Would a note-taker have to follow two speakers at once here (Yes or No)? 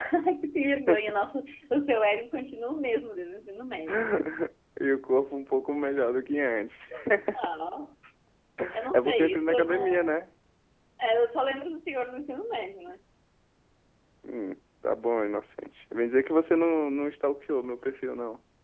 Yes